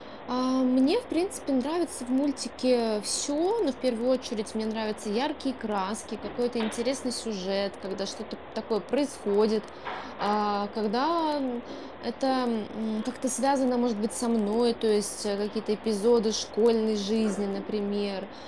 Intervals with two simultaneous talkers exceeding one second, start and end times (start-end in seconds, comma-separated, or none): none